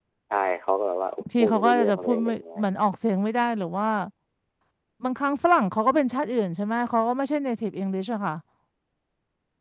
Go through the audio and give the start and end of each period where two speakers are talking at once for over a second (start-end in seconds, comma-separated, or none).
1.2-2.6